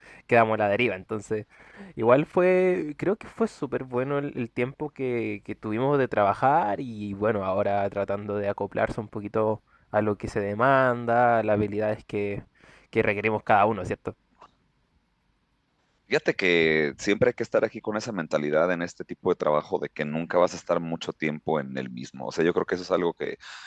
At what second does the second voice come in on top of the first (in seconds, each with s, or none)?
none